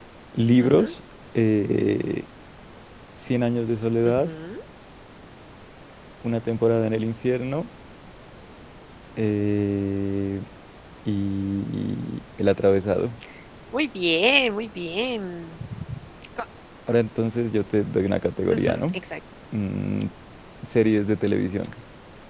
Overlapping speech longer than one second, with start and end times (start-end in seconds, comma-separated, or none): none